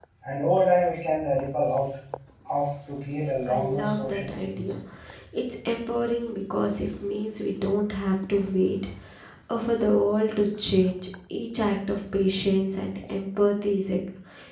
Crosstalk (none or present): present